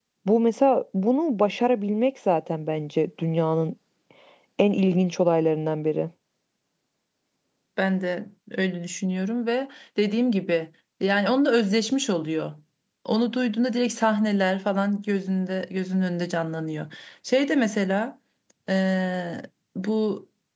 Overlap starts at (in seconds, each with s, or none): none